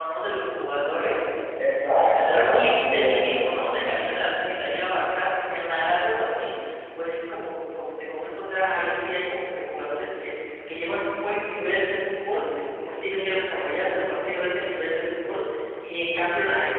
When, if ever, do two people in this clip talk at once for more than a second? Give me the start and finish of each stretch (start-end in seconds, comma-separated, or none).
1.8-3.3